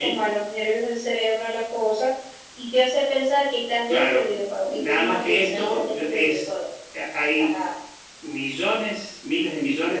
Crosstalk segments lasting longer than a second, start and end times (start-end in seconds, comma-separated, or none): 4.6-6.5